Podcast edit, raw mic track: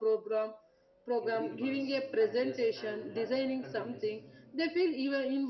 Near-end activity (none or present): present